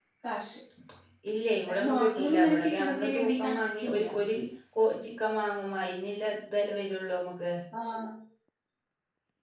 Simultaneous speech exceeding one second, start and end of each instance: 1.7-4.0

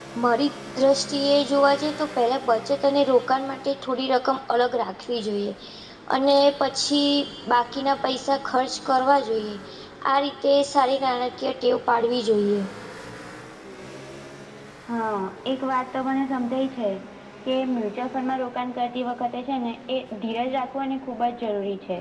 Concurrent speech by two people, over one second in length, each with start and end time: none

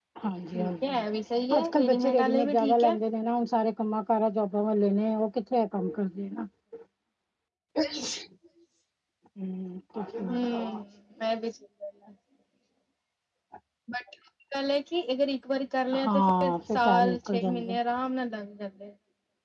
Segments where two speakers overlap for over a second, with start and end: 1.6-3.0, 16.0-17.7

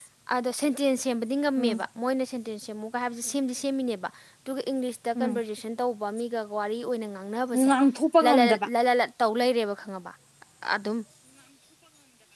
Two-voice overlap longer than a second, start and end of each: none

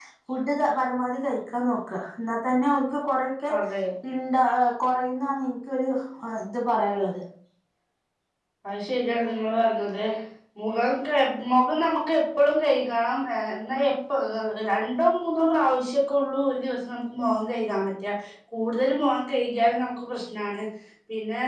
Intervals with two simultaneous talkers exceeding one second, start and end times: none

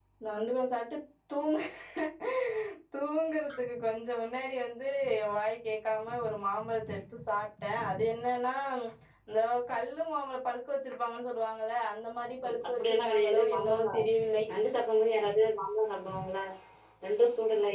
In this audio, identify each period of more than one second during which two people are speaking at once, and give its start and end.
12.7-14.0

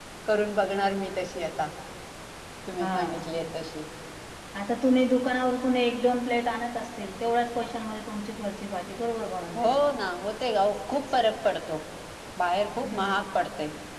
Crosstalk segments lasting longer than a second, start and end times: none

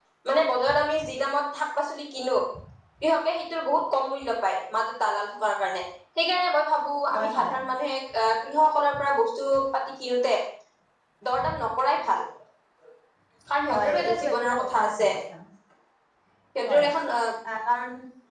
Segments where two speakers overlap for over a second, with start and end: 13.7-15.1

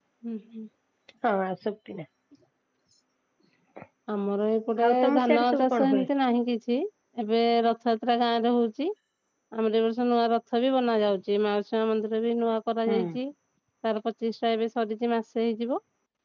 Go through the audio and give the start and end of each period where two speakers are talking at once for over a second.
4.8-6.0

